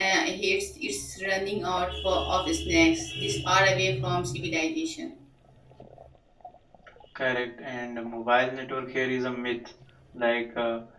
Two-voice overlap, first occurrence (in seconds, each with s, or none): none